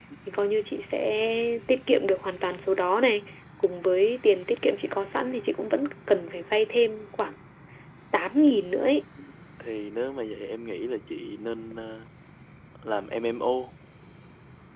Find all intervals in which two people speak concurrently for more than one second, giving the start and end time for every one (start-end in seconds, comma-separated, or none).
none